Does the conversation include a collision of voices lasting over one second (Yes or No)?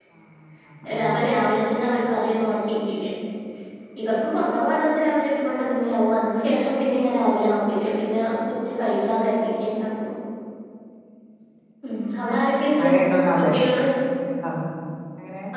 No